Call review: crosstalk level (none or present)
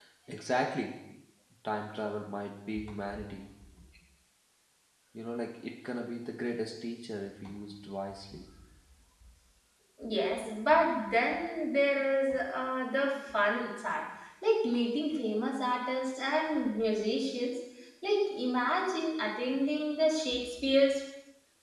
none